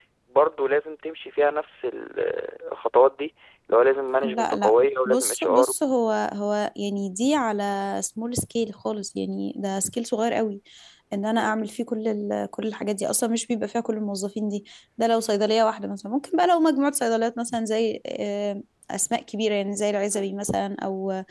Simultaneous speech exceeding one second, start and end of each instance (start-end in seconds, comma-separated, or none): 4.2-5.7